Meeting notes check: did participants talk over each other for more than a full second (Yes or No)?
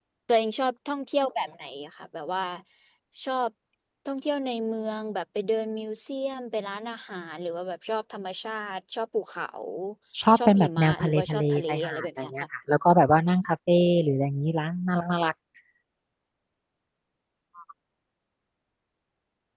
Yes